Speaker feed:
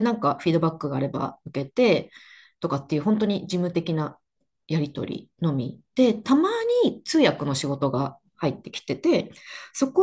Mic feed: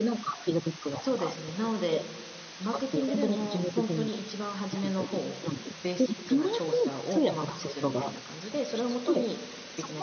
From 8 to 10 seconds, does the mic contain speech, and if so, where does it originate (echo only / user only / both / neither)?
both